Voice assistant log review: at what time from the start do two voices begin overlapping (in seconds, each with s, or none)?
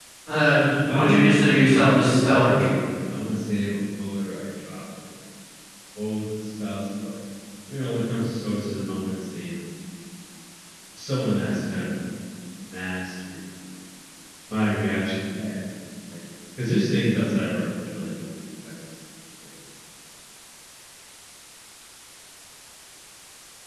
0.9 s